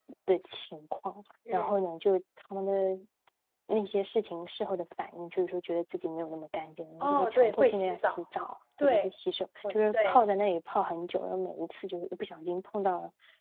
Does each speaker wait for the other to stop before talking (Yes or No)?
No